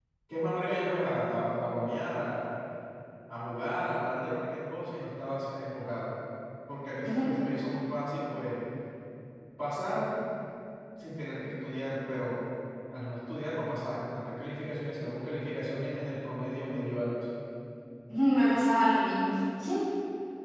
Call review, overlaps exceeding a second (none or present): none